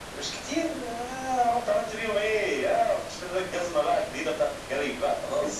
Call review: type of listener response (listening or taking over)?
taking over